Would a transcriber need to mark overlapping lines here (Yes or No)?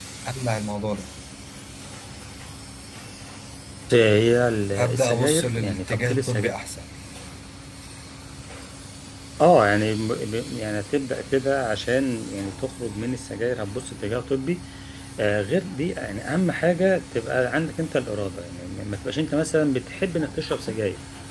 Yes